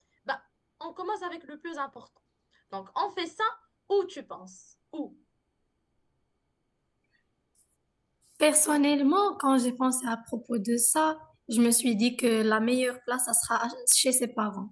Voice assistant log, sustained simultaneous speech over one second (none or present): none